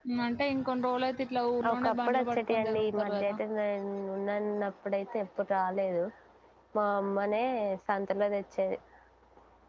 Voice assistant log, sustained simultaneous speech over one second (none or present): present